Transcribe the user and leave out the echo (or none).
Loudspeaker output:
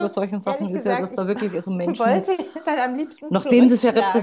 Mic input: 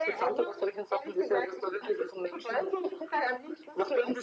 none